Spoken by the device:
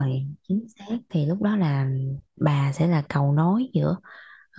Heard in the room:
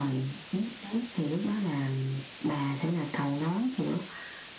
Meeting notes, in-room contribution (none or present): none